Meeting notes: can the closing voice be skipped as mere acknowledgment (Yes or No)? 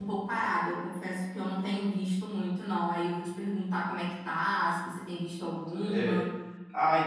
No